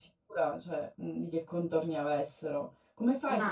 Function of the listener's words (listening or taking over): listening